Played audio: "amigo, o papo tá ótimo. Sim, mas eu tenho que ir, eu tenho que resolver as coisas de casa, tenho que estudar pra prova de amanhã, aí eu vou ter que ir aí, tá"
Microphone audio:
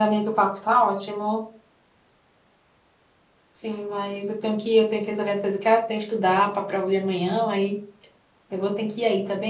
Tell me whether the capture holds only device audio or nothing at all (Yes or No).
Yes